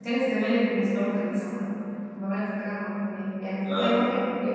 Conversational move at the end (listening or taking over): listening